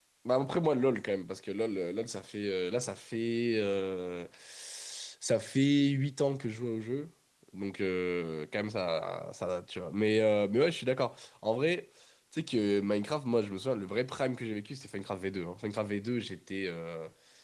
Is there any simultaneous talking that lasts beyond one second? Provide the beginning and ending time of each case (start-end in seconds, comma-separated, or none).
none